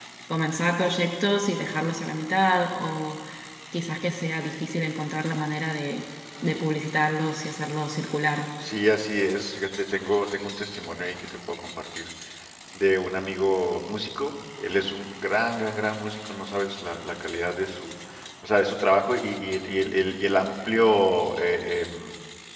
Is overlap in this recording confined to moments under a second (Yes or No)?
Yes